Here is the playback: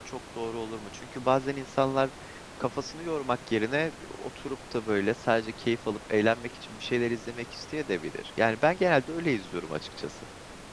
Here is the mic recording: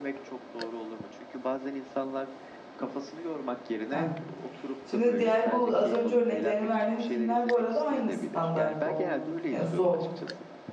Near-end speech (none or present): present